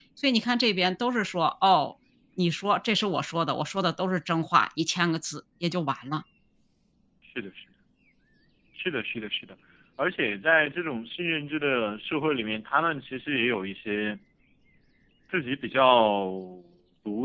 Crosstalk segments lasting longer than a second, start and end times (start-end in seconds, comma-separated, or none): none